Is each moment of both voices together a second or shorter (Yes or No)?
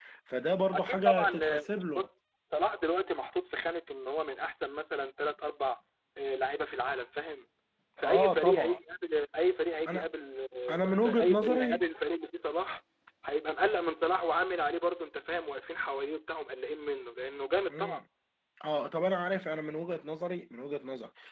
No